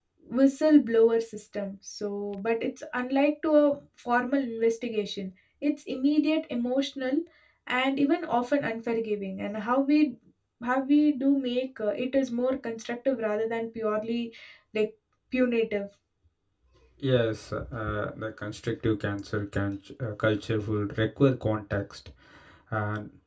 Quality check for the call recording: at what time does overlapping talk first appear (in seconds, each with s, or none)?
none